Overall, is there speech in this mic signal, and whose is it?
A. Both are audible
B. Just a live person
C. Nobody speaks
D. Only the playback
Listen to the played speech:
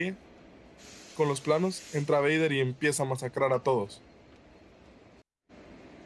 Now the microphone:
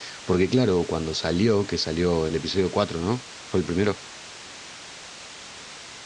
B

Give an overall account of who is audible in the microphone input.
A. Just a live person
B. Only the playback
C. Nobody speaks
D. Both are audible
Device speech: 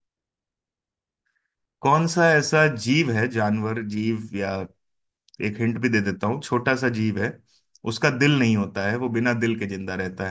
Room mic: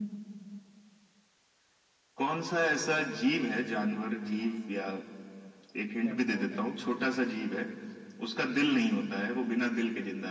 D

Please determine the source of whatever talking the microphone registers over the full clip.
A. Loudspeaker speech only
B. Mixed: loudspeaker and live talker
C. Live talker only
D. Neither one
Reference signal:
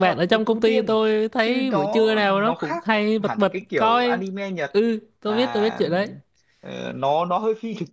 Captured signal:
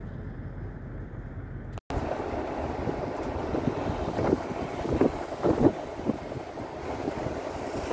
D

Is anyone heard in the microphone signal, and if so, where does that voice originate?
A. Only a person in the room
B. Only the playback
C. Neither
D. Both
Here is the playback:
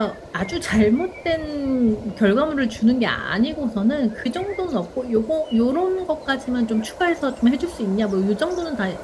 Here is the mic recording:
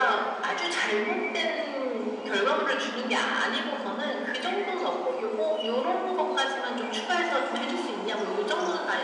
B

